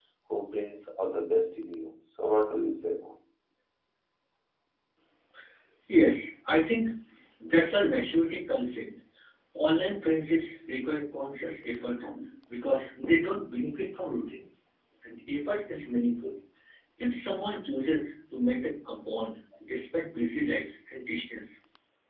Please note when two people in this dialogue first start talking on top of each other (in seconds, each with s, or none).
none